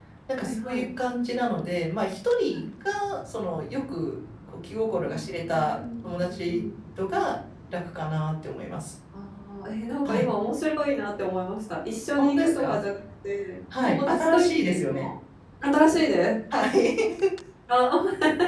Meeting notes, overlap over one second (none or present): present